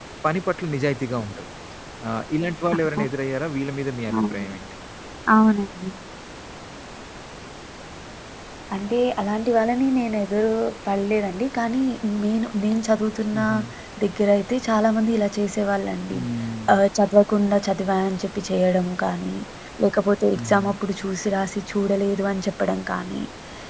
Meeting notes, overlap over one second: none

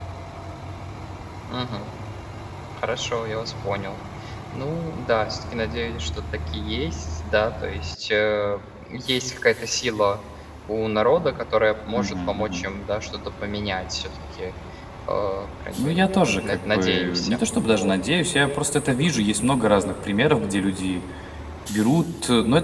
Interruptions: present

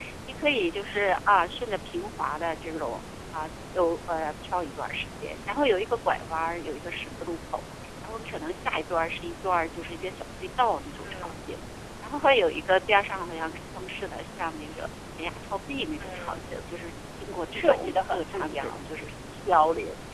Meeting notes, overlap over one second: present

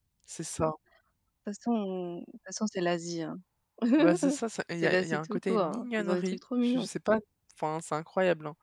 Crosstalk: present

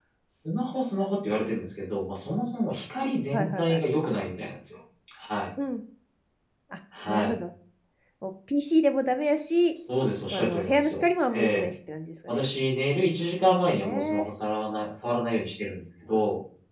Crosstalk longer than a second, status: present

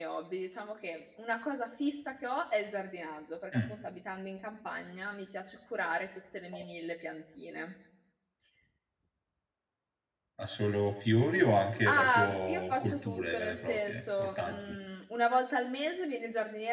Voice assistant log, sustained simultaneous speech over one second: present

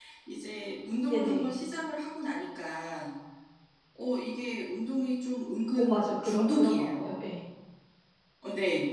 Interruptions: present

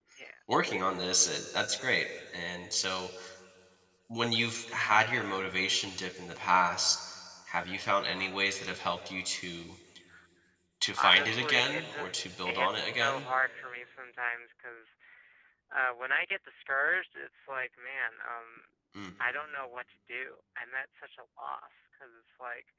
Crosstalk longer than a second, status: present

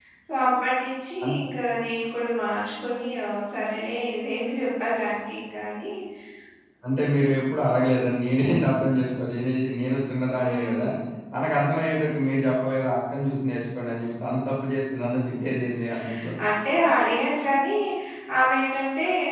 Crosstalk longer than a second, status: none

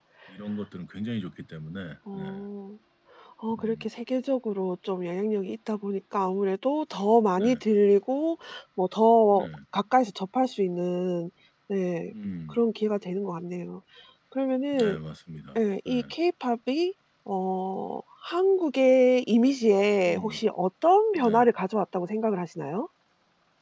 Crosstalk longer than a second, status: none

